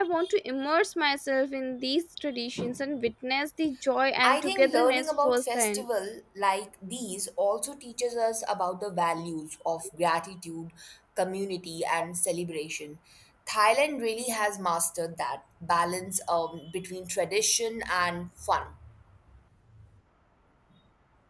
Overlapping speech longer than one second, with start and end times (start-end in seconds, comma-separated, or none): 4.2-5.8